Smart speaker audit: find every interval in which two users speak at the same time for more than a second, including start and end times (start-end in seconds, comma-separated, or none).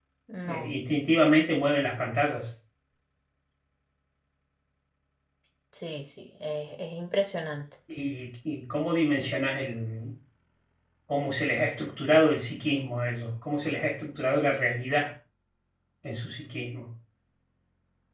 none